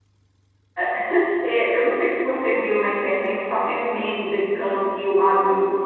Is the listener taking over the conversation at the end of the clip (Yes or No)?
No